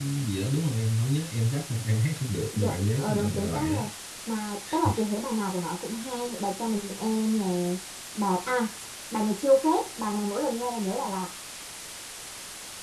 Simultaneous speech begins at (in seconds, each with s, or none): 2.5 s